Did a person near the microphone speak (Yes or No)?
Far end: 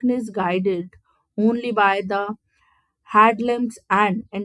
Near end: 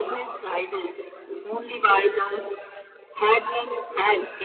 No